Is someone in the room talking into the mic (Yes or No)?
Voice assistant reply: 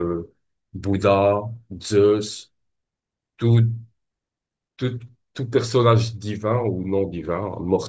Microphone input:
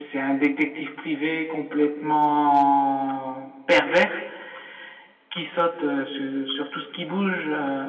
Yes